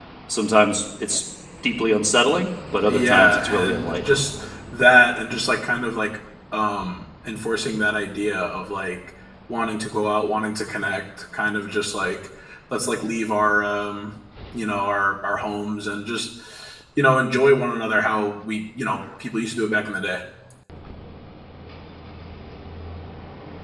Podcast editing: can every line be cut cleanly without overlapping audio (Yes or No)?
No